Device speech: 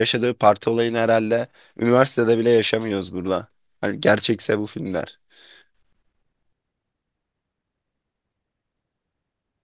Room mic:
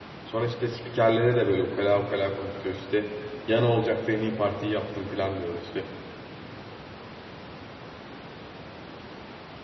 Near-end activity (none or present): present